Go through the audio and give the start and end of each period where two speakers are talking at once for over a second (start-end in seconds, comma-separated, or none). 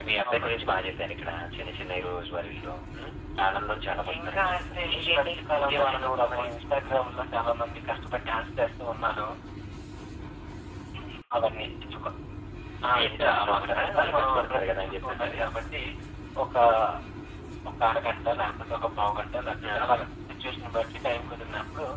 4.2-6.5, 12.9-15.4